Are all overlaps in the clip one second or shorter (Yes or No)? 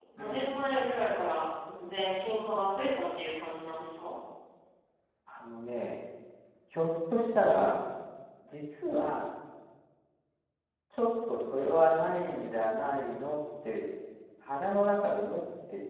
Yes